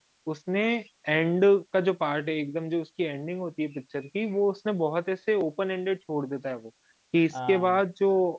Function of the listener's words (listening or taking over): listening